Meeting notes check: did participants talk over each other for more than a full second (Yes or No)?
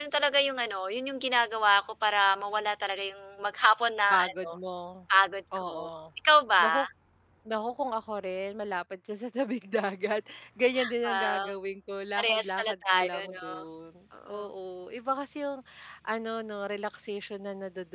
Yes